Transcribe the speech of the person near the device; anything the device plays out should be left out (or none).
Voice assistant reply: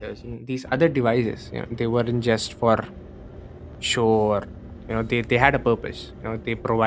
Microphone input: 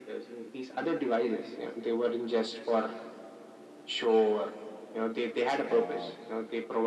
uh,